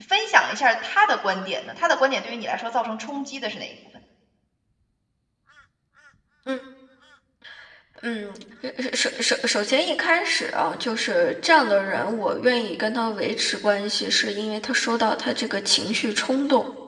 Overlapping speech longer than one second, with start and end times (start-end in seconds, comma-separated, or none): none